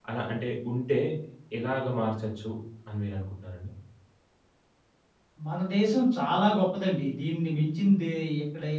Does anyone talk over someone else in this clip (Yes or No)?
No